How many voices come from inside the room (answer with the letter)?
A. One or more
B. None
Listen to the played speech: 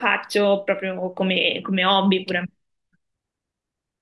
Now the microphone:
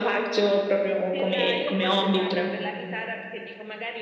A